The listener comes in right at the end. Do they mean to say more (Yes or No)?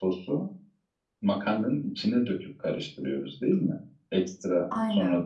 No